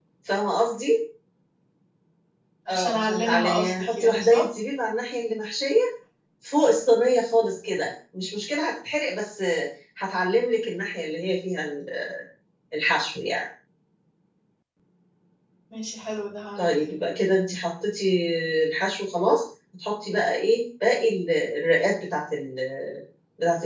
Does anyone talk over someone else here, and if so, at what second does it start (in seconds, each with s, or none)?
2.7 s